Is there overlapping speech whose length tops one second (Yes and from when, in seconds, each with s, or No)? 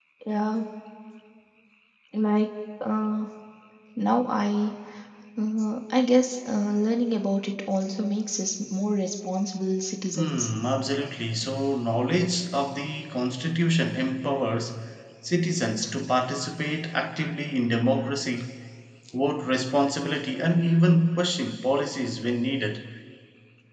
No